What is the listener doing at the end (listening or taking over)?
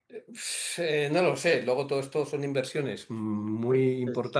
listening